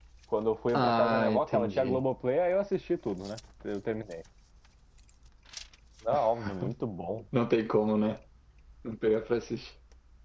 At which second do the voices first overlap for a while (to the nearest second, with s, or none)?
1 s